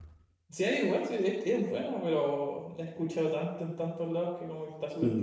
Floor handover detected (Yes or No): Yes